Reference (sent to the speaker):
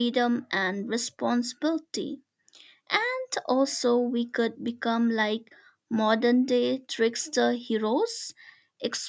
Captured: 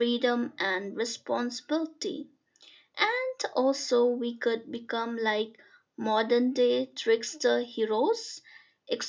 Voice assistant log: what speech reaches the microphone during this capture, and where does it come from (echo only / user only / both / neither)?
echo only